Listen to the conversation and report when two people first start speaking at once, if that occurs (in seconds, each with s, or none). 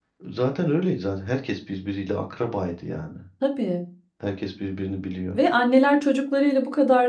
none